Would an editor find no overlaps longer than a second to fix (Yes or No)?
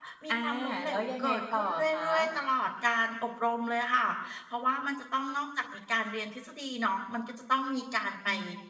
No